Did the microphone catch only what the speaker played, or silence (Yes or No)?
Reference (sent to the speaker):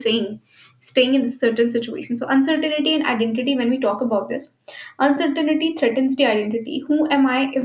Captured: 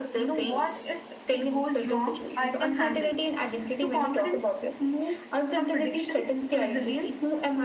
No